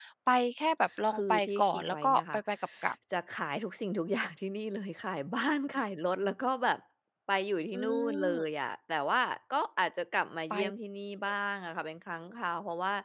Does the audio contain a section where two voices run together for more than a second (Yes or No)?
Yes